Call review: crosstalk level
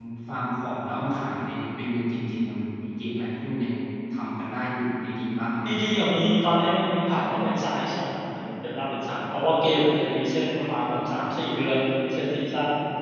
none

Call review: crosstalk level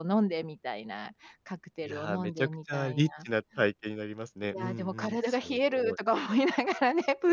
present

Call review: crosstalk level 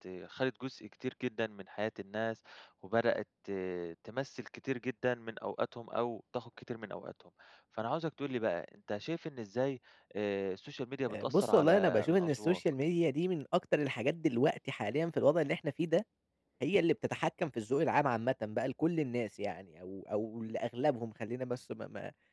present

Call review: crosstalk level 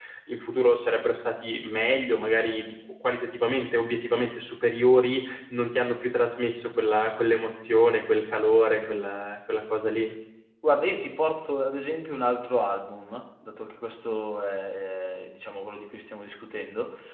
none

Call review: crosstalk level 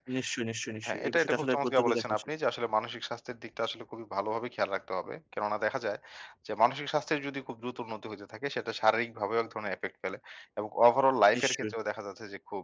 present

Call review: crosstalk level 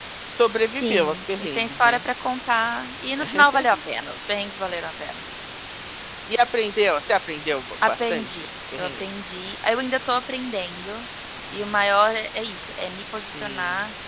present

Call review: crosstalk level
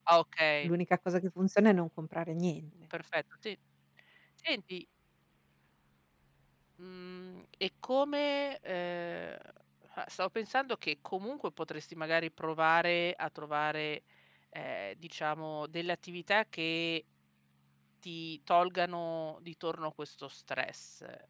none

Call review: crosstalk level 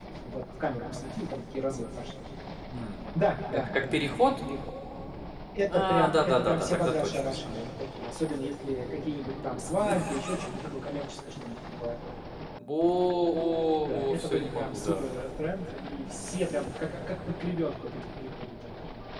present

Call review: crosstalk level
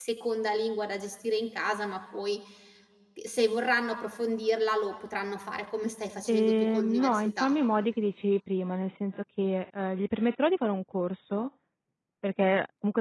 present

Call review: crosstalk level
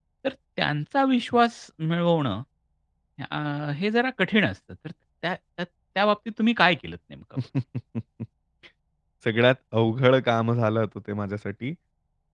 none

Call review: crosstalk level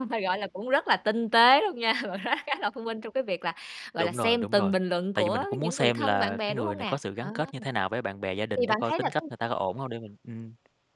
present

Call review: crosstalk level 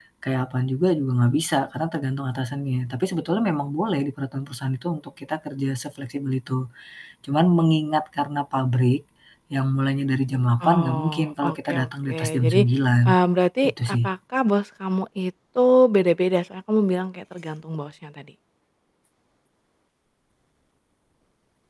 present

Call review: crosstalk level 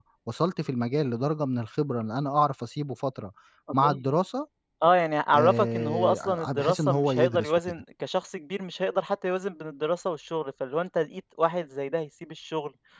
present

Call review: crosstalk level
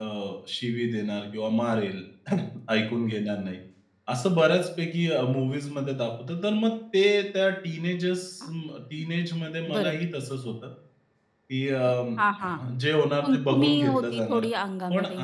present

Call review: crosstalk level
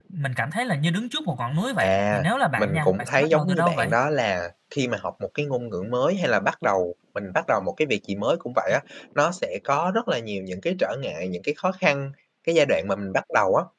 present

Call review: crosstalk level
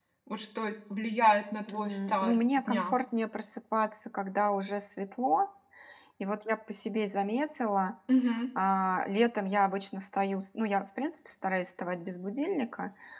present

